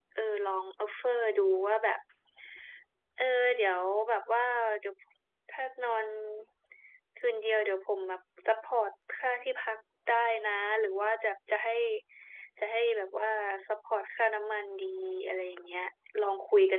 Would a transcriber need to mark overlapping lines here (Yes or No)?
No